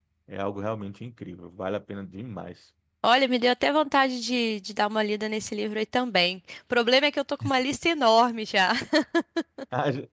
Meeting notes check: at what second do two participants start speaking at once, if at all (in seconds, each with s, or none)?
none